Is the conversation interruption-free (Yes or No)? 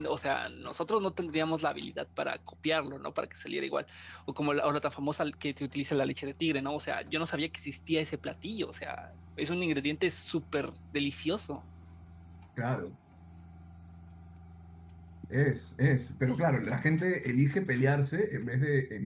Yes